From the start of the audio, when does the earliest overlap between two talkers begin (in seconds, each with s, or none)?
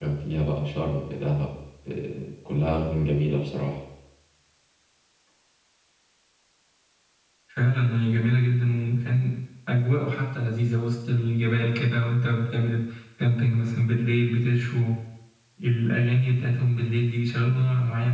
none